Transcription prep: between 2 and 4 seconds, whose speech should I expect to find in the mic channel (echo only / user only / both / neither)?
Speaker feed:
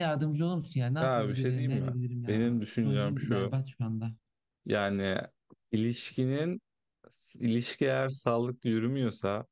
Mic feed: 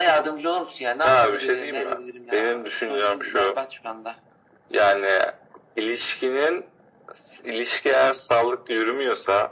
echo only